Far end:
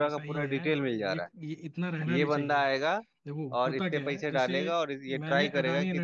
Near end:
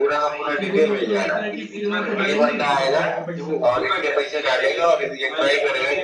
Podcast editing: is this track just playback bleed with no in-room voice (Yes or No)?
No